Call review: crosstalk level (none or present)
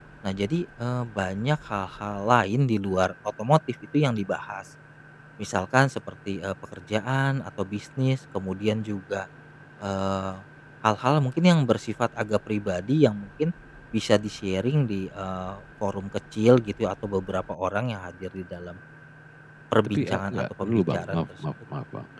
present